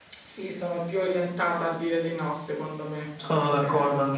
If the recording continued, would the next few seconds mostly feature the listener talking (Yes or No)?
Yes